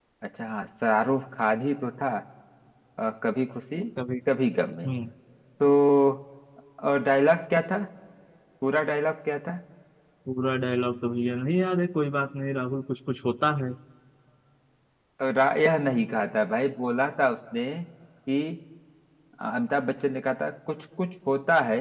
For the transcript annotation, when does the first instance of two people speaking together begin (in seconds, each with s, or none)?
none